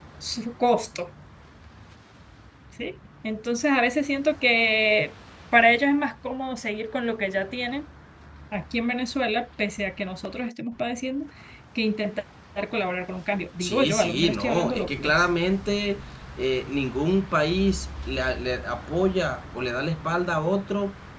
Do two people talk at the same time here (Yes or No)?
Yes